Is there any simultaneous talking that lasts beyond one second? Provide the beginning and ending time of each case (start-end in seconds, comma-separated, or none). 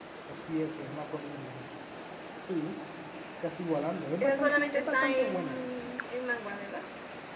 4.2-5.6